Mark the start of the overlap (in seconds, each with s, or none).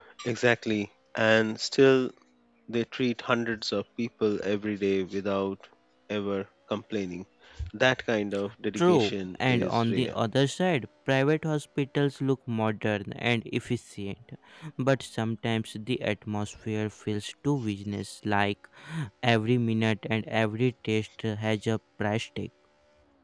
8.8 s